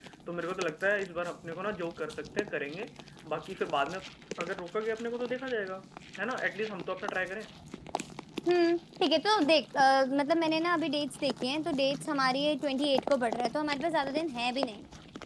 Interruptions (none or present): none